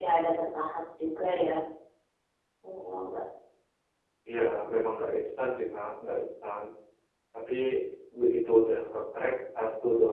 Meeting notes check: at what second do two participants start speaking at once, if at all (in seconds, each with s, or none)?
none